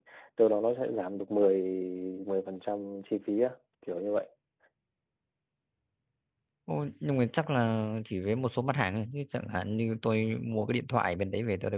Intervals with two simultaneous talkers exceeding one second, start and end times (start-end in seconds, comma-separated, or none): none